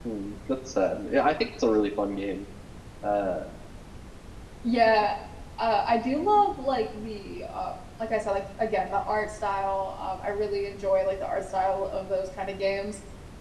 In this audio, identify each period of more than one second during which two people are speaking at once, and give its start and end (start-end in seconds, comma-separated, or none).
none